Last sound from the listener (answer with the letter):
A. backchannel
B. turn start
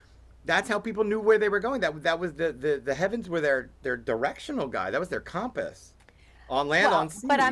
B